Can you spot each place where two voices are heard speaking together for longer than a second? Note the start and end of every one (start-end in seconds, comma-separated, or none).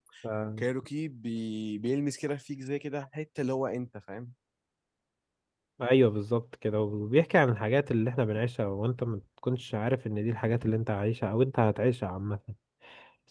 none